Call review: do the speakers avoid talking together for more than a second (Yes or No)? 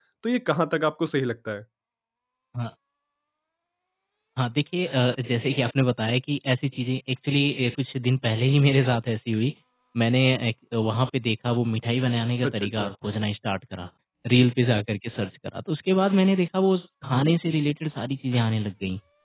Yes